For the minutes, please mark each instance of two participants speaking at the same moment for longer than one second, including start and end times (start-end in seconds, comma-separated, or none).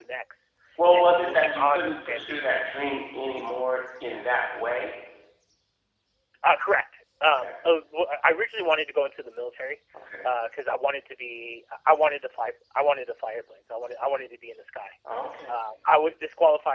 0.9-2.5